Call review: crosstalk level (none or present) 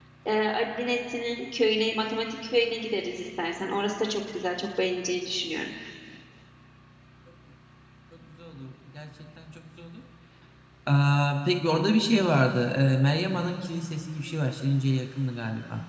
none